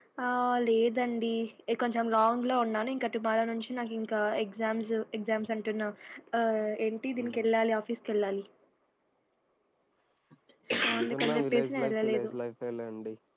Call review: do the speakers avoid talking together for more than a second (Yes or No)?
No